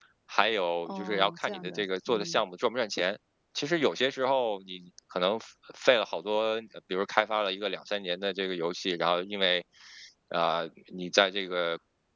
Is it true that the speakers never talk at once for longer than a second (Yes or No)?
No